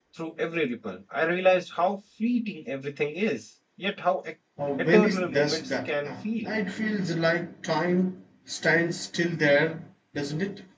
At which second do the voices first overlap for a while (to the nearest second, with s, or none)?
5 s